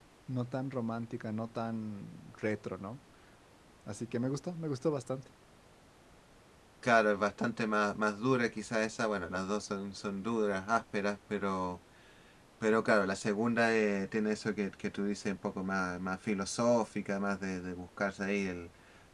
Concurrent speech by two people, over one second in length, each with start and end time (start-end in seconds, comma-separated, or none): none